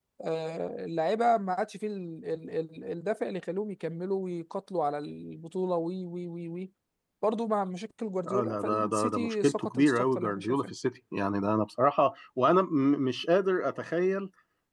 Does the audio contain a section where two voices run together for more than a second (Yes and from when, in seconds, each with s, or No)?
Yes, from 8.2 s